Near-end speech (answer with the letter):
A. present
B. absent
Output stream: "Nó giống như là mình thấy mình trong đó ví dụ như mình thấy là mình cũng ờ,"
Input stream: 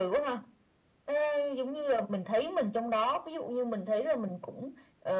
B